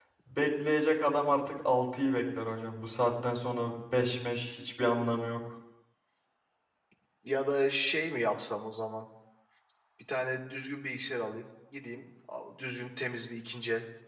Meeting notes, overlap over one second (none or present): none